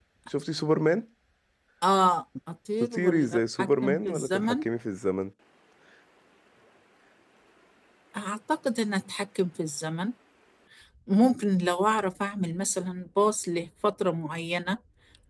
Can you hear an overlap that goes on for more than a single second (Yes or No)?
Yes